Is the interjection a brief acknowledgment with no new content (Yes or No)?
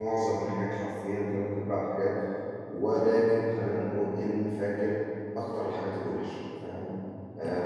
No